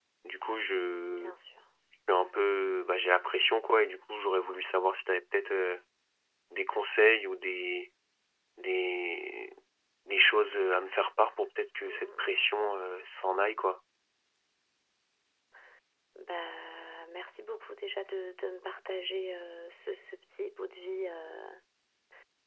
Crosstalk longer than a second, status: none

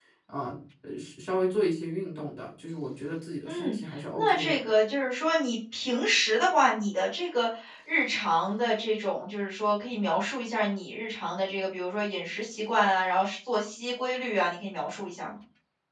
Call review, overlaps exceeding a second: none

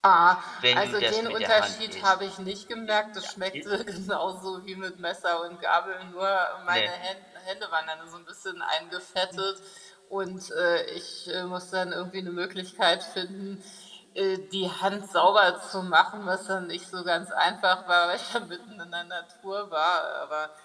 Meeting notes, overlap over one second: present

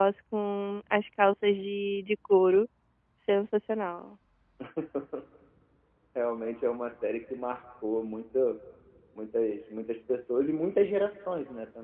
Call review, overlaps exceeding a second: none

